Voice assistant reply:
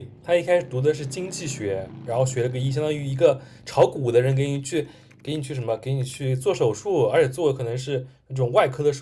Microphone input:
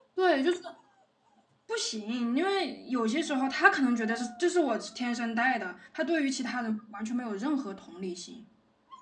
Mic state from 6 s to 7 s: user only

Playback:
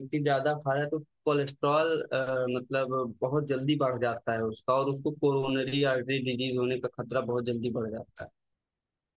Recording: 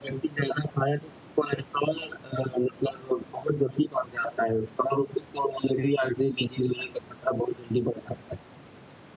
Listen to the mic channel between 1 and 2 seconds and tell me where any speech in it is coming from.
echo only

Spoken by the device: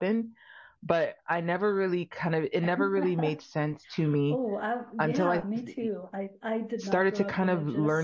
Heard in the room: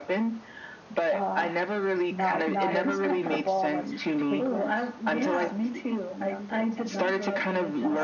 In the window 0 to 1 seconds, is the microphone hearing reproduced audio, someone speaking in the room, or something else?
echo only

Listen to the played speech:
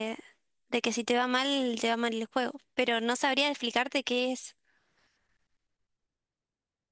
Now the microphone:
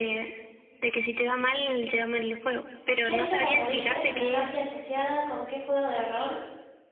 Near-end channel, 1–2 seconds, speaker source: echo only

